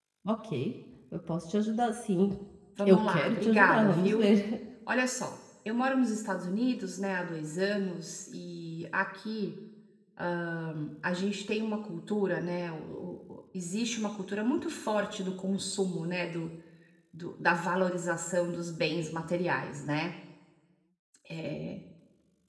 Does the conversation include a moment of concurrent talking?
Yes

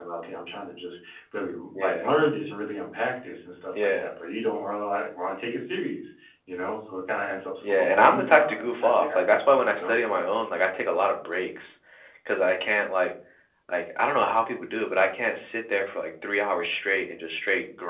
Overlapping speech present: Yes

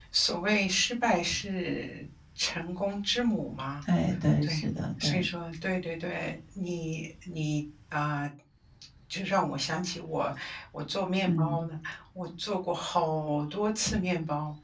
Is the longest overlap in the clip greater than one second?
No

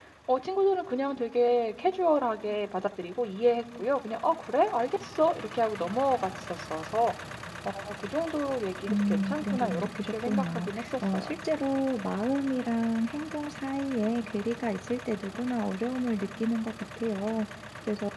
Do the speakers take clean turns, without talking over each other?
No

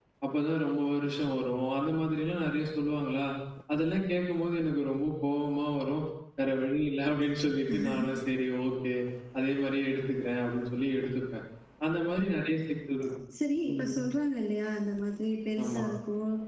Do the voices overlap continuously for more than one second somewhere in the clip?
No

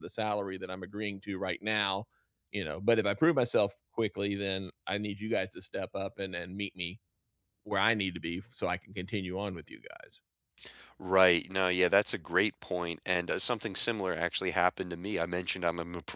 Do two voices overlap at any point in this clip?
No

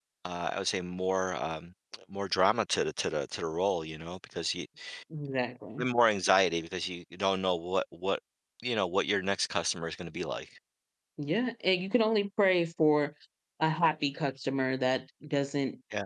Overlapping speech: No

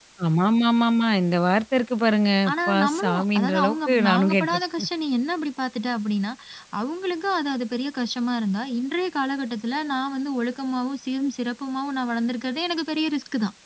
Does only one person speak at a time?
No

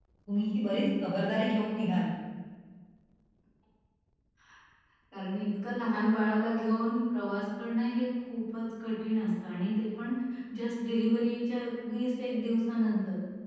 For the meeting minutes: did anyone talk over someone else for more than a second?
No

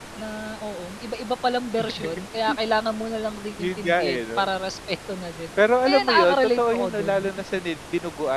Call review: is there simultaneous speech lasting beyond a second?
Yes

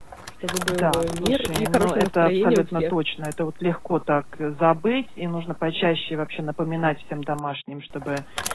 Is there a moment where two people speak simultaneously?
Yes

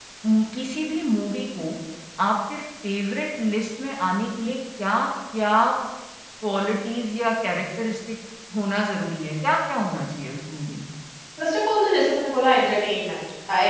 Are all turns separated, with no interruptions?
Yes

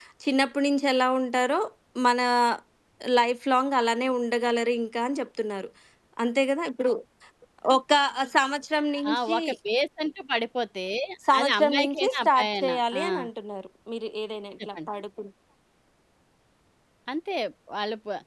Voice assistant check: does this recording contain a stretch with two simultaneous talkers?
Yes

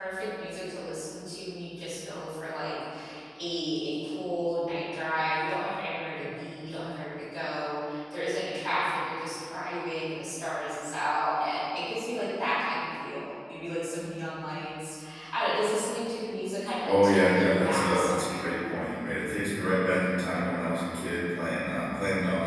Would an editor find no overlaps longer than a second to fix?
No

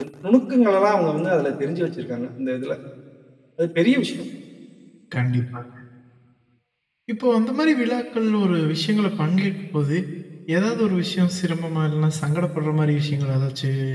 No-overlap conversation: Yes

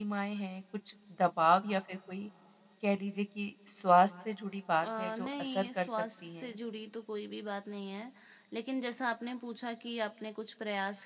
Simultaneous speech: Yes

